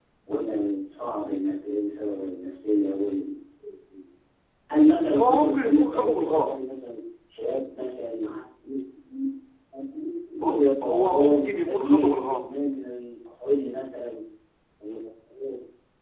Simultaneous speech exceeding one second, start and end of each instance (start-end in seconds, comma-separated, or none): 5.2-6.6, 10.3-12.5